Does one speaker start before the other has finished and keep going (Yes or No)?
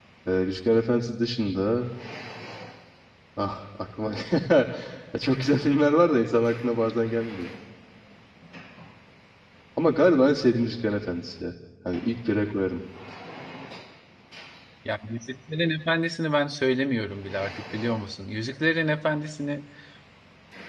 No